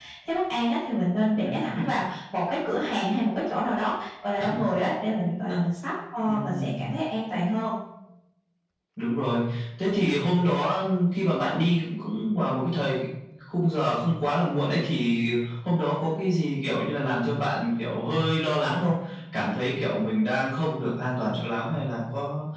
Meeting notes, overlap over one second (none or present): none